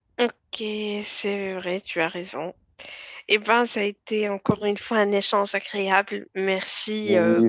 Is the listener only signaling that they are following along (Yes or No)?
No